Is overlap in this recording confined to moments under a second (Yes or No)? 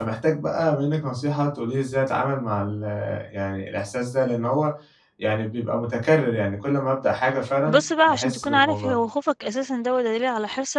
No